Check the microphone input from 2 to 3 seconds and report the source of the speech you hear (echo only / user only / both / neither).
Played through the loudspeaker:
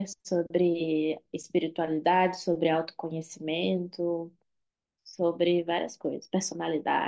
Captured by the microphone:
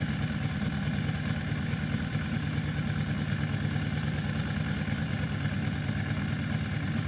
neither